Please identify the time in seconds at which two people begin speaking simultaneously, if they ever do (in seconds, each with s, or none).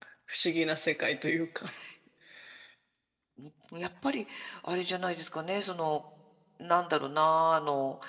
none